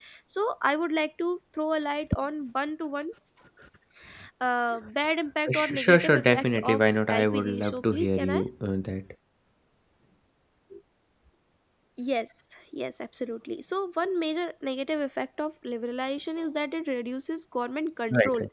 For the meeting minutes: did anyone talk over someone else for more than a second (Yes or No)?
Yes